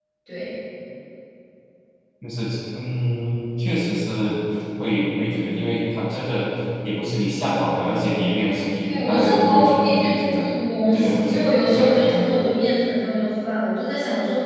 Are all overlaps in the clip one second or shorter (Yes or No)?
No